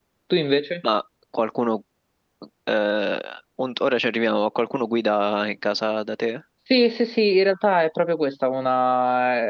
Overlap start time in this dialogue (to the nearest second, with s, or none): none